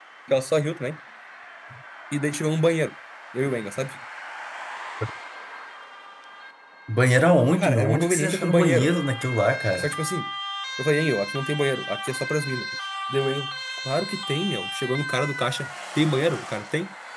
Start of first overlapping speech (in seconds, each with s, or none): 7.6 s